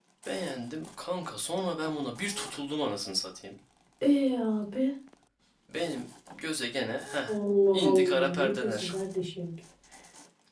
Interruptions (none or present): present